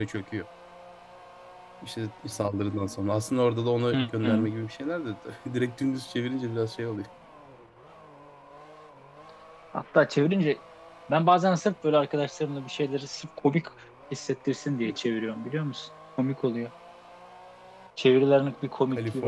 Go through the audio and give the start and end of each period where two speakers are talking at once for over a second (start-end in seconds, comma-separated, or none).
none